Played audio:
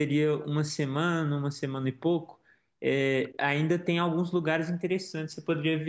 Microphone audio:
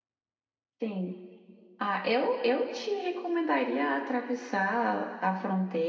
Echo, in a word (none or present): none